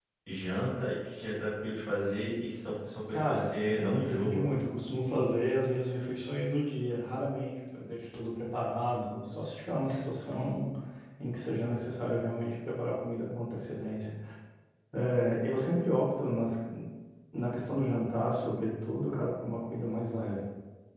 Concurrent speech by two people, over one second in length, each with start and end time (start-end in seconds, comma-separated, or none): 3.1-4.5